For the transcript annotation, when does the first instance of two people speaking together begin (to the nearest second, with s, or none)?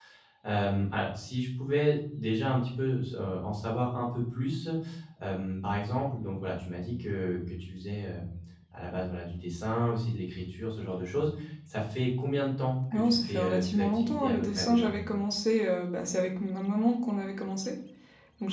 13 s